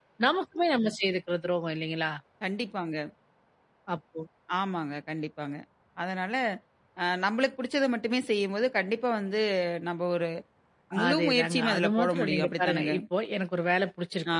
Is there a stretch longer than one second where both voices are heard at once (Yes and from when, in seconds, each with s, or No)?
Yes, from 11.1 s